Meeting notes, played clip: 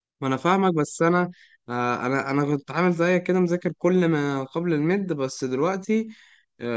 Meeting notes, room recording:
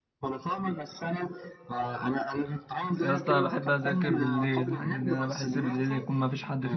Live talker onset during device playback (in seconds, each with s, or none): 3.0 s